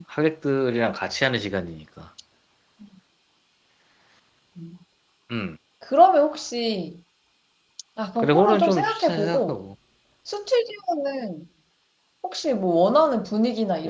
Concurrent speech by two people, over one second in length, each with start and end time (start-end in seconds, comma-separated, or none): 8.2-9.6